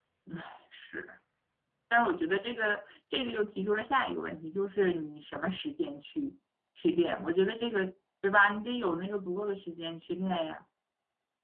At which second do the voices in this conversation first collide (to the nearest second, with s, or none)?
none